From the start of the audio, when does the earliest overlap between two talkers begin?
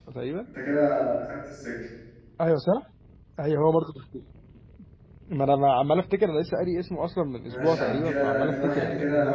7.5 s

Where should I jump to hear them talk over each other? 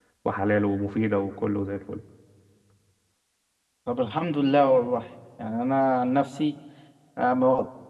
none

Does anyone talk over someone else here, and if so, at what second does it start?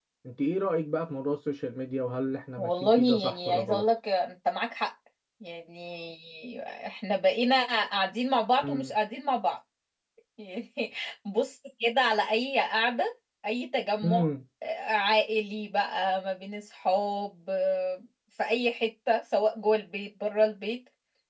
2.6 s

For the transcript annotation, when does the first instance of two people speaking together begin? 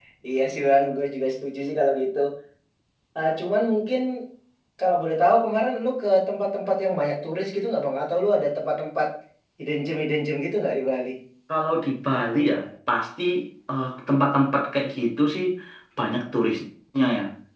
none

